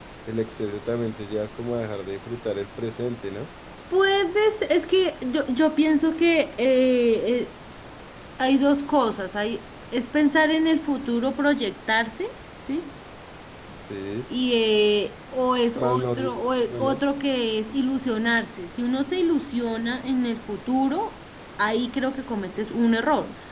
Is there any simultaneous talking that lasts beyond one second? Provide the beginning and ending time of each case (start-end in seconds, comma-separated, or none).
15.8-17.0